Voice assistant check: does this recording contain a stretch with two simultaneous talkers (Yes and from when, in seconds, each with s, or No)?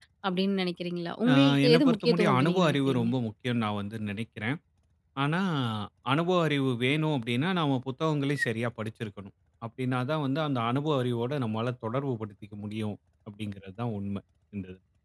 Yes, from 1.3 s